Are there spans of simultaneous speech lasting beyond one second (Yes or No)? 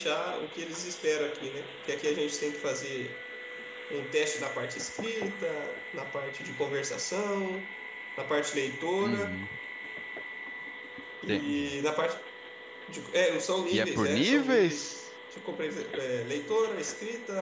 Yes